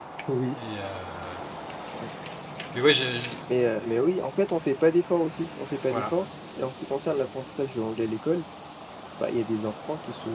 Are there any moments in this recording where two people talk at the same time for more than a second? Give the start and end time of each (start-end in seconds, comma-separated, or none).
none